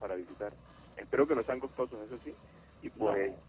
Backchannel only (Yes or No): Yes